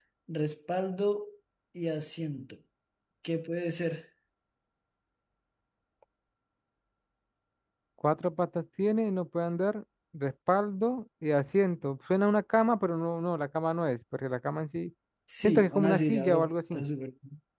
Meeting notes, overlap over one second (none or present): present